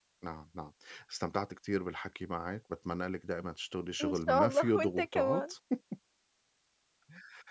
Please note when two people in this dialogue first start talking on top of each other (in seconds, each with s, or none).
4.0 s